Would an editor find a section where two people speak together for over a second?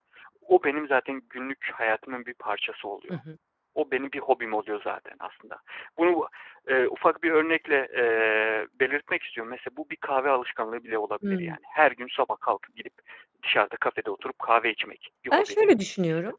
No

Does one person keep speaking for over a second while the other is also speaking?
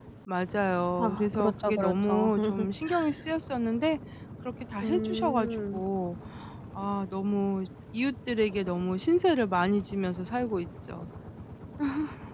Yes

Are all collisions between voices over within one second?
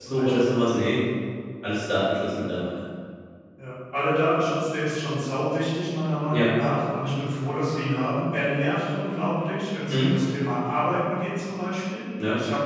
Yes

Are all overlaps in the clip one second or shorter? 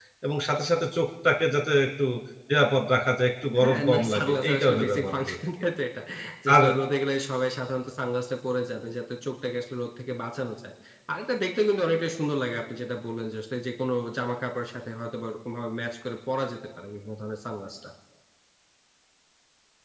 No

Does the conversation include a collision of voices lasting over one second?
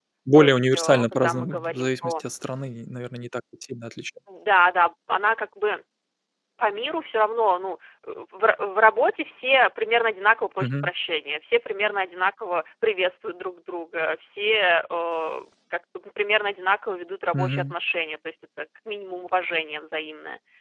Yes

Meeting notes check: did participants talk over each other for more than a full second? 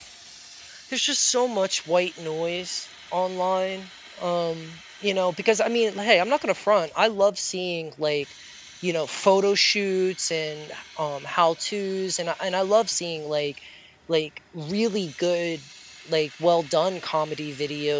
No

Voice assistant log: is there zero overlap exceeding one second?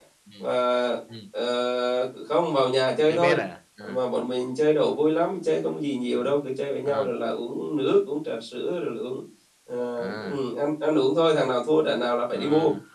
Yes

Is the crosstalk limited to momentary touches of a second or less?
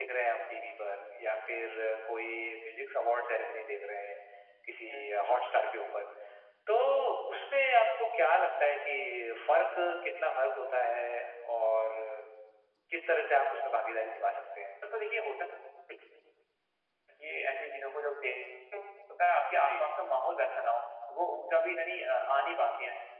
Yes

